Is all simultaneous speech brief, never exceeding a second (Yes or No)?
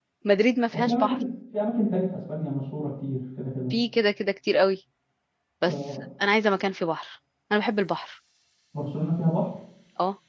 Yes